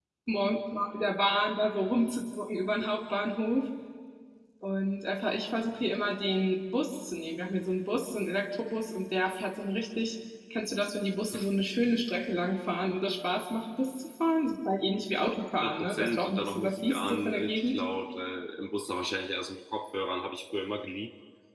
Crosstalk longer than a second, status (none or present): present